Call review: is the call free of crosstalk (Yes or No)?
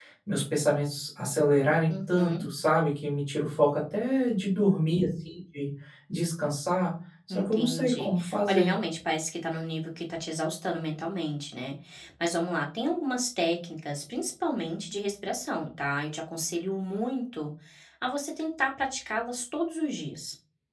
No